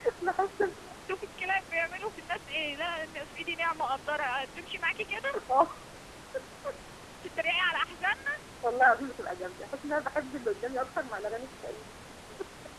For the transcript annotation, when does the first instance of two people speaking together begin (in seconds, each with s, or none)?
none